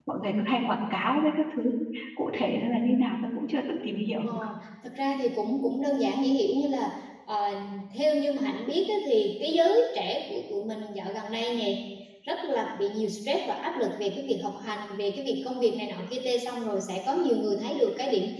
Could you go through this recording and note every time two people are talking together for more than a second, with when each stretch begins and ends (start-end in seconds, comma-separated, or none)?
none